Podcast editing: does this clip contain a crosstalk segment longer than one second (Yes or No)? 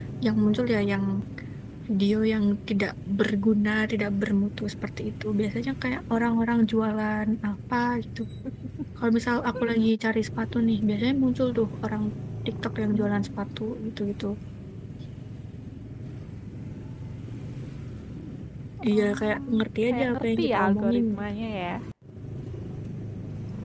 Yes